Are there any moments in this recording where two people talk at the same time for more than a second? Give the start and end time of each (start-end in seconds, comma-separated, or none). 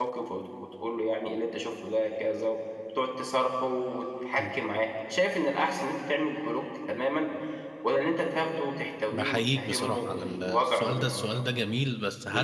9.1-11.2